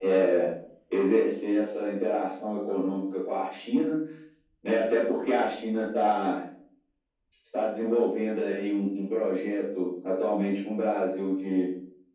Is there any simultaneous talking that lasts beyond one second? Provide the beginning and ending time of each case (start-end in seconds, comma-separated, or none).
none